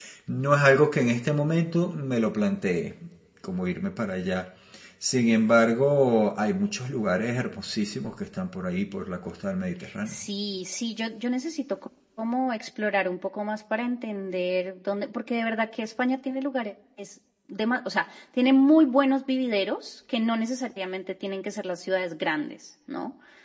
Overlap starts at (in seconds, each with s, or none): none